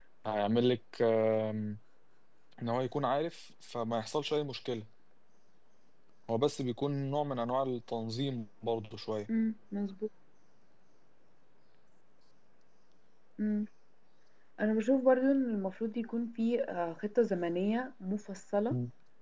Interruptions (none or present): none